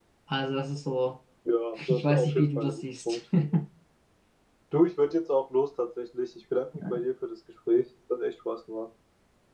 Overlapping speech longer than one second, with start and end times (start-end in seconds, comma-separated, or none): 1.9-3.2